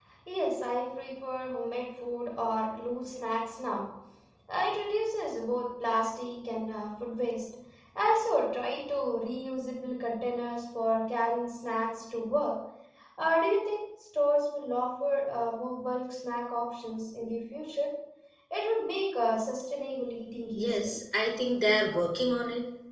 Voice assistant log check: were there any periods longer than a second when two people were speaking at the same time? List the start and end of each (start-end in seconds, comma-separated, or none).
none